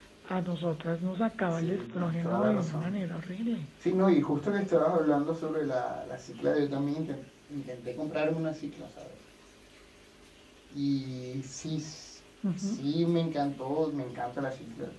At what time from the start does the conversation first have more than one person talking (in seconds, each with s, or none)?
1.5 s